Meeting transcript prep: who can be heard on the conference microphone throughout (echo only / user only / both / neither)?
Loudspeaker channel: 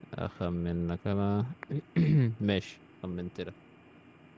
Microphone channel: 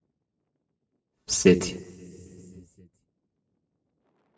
user only